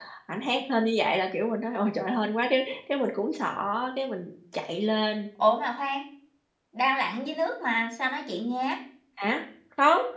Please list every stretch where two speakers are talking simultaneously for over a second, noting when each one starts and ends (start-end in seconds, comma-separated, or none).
none